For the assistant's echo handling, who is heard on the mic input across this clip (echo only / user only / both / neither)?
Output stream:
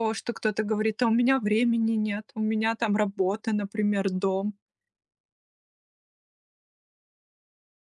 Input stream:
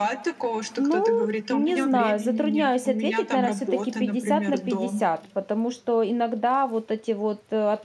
both